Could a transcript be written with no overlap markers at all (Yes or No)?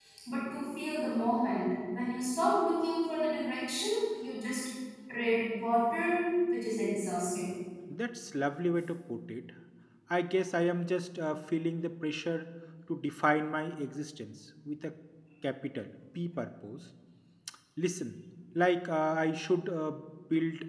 Yes